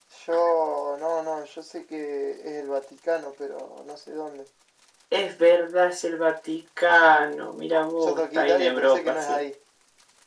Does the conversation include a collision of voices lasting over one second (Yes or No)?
Yes